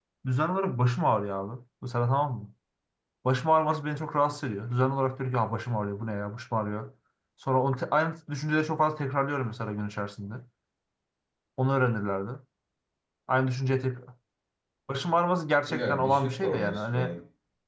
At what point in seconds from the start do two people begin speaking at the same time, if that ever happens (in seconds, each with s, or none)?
15.7 s